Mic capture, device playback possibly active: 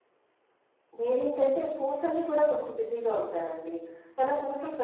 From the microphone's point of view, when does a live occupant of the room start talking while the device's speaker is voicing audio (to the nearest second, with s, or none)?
1 s